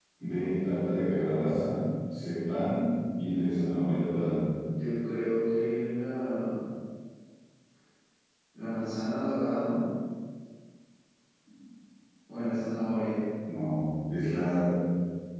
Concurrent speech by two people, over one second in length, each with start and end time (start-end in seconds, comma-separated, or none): none